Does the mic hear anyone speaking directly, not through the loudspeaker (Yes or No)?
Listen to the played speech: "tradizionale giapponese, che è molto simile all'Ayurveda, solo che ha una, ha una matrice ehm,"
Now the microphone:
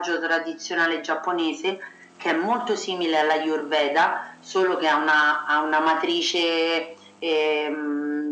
No